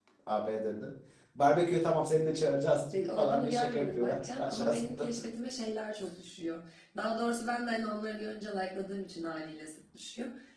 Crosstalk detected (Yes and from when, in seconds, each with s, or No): Yes, from 2.9 s